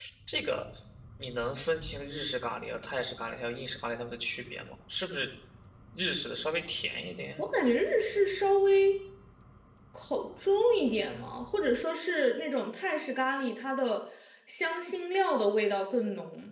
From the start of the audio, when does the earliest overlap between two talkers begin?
none

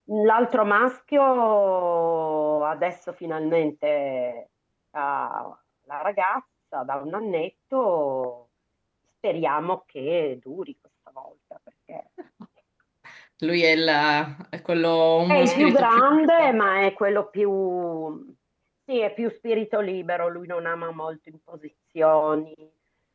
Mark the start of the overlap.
15.3 s

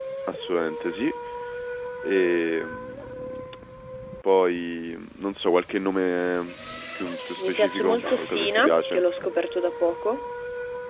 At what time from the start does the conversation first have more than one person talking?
7.4 s

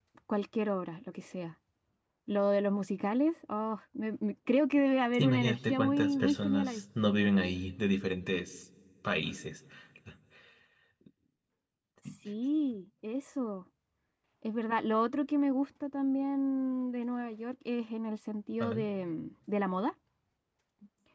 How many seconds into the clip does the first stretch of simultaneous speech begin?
5.2 s

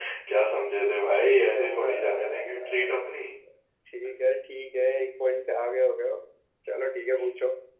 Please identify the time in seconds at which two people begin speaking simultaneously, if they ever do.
1.4 s

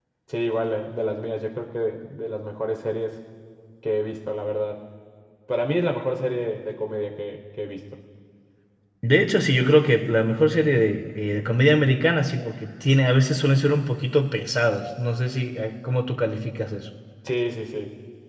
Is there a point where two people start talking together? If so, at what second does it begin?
none

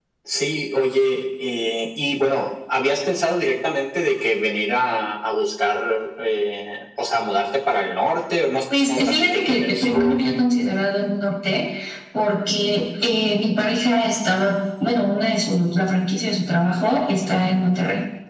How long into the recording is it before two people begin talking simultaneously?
8.7 s

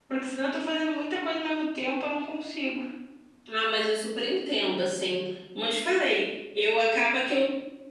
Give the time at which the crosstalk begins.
none

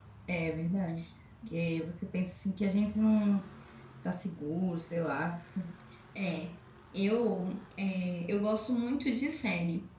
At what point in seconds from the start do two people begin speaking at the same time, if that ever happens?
none

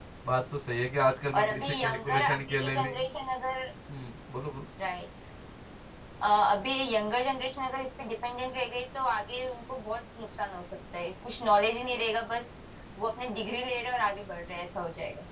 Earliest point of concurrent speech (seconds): 1.3 s

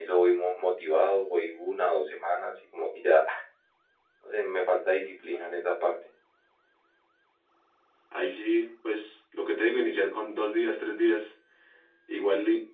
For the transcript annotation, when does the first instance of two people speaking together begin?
none

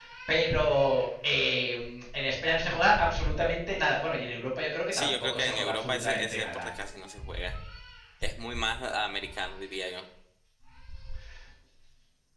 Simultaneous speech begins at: 4.9 s

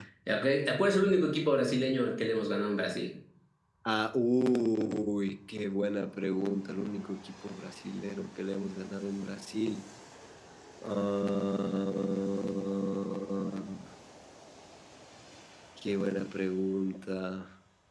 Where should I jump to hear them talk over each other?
none

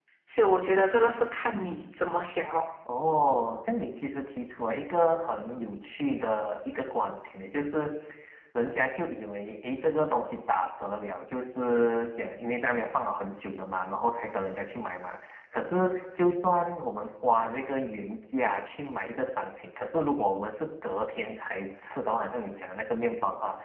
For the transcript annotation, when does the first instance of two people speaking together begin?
none

